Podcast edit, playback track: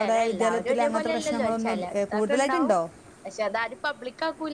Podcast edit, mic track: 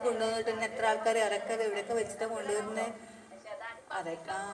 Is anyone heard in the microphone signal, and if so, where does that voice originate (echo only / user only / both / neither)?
both